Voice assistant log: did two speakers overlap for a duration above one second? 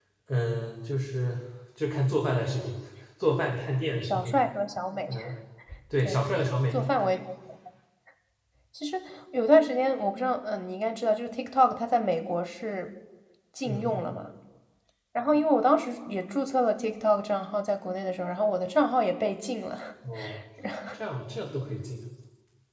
No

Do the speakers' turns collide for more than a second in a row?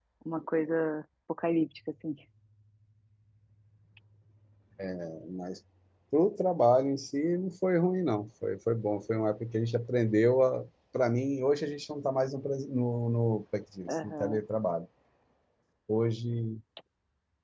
No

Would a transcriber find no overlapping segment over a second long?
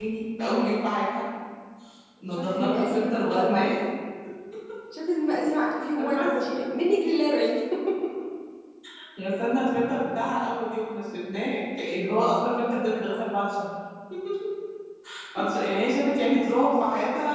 No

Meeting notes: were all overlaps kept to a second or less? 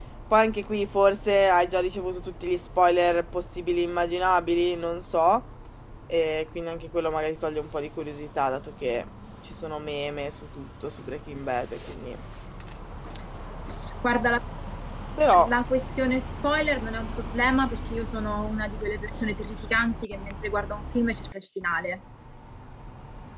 Yes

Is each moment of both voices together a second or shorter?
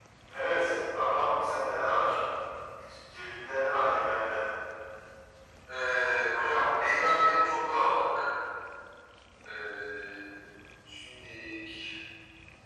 Yes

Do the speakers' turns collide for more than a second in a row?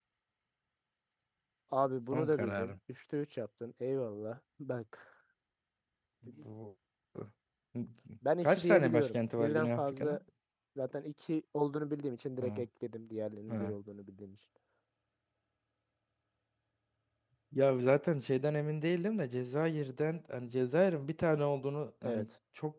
Yes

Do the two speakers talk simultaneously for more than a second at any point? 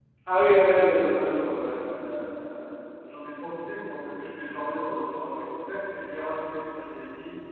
No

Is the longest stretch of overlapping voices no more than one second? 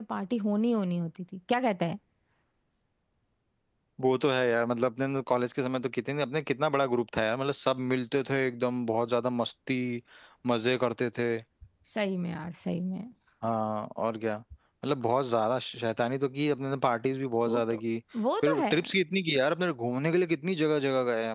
Yes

